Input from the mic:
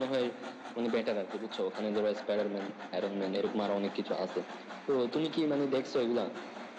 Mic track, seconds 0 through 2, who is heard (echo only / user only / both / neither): echo only